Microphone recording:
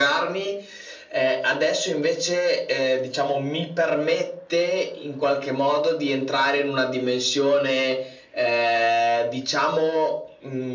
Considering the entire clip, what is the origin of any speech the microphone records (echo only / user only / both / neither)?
echo only